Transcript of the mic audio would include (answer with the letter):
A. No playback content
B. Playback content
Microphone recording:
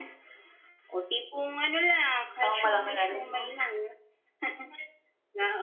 B